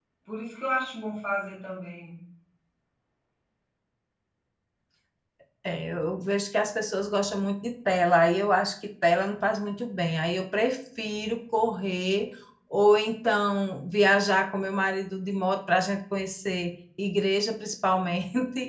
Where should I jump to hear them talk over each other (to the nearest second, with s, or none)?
none